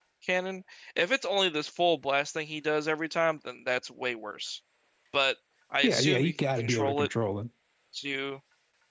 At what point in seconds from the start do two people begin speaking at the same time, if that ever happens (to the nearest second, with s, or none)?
6 s